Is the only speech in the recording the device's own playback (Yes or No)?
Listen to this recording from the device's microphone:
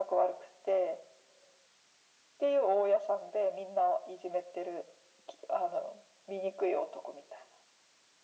Yes